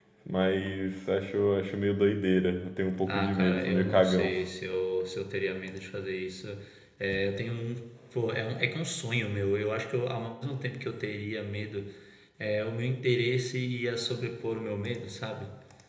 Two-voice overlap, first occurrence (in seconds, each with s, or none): 3.0 s